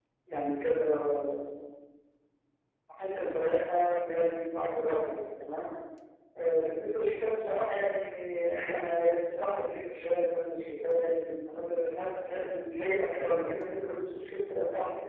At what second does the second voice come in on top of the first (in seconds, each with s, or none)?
none